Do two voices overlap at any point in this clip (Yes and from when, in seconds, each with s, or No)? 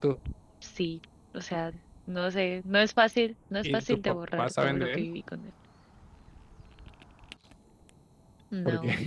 Yes, from 3.6 s